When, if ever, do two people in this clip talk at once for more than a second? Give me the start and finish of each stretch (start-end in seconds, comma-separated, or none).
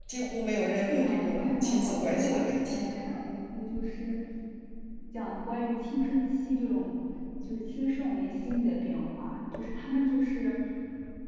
0.8-2.8